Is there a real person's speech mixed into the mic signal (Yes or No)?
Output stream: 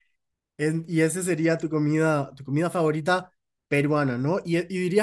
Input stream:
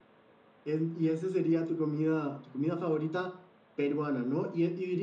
No